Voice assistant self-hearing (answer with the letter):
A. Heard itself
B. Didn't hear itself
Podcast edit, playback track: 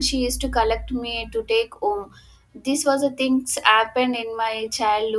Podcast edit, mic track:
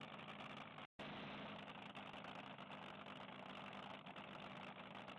B